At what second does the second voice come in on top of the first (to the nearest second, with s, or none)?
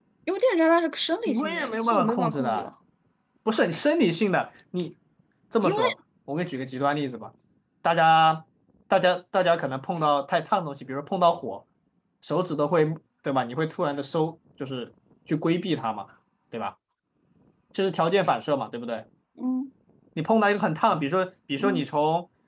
1 s